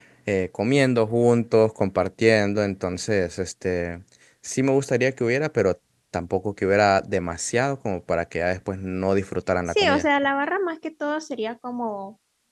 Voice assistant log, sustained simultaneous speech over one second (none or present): none